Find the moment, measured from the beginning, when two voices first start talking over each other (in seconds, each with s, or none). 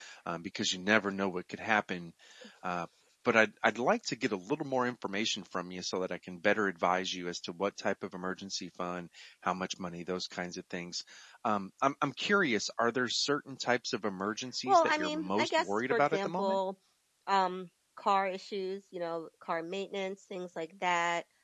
14.7 s